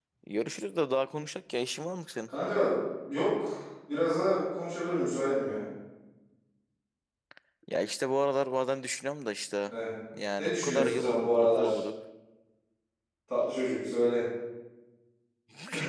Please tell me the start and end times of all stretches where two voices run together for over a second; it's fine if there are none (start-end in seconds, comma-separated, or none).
10.4-11.8